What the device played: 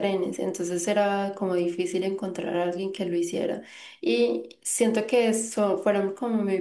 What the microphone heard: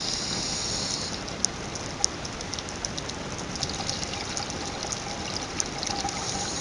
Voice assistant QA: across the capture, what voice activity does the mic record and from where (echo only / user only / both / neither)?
neither